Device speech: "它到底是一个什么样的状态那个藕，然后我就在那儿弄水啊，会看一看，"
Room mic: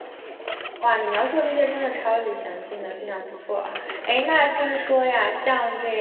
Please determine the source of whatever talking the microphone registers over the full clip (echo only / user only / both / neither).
user only